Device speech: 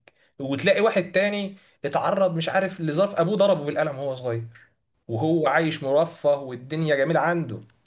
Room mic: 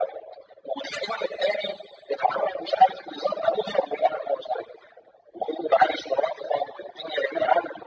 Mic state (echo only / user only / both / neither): echo only